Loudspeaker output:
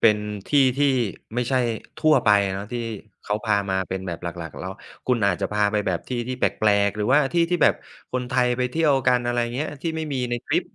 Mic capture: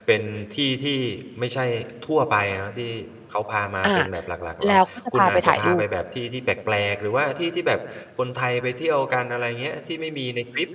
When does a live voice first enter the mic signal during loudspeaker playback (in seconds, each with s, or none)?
3.9 s